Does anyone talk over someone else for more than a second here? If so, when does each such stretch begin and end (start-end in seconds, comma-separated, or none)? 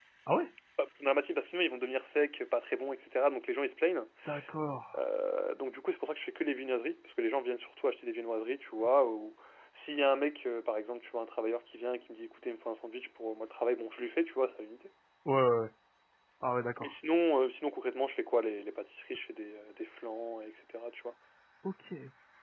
none